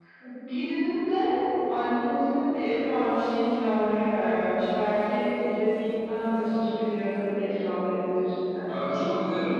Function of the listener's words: taking over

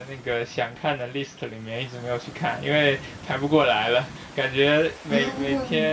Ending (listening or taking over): listening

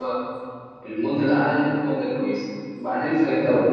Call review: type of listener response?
listening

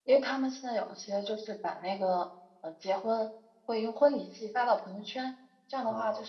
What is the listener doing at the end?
listening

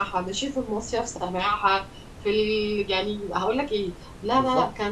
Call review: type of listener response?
listening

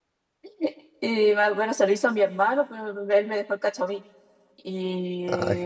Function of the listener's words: listening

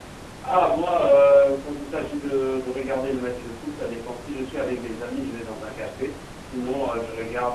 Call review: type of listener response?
listening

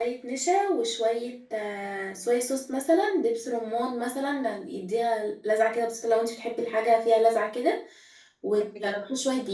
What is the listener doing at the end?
listening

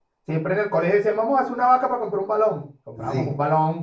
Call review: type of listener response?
listening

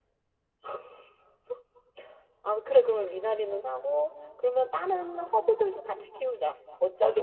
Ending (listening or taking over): taking over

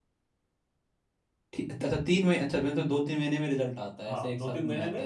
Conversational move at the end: taking over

